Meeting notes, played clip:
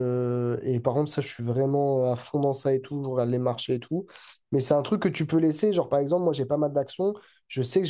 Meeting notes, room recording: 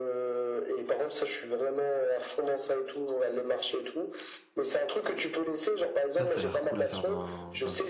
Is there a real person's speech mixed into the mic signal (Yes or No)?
Yes